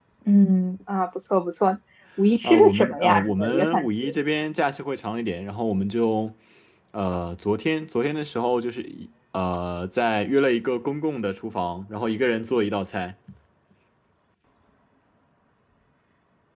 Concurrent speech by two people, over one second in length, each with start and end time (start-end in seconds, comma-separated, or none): 2.4-4.0